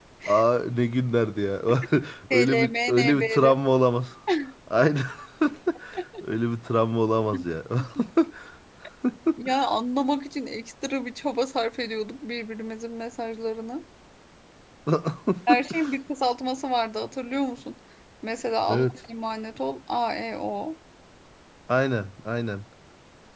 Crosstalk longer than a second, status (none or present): present